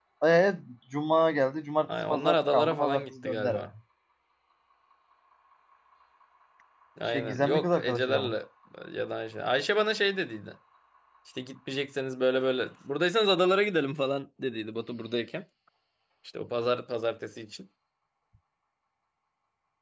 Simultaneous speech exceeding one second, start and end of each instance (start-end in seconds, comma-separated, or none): 2.1-3.6, 7.0-8.3